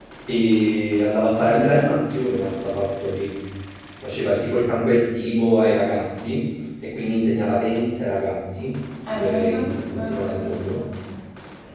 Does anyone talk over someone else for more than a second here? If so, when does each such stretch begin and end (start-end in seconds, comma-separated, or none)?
9.1-10.6